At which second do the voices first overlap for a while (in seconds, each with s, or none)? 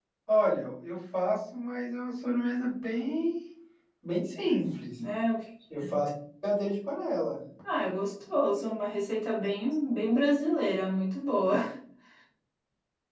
none